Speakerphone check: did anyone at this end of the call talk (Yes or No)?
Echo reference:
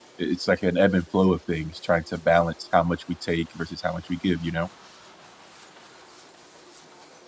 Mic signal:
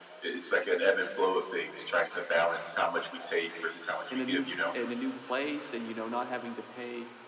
Yes